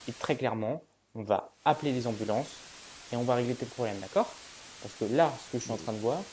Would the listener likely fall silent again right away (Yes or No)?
Yes